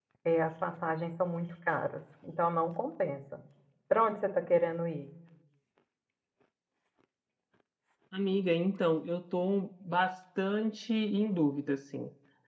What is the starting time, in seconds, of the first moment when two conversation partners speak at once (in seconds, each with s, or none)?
none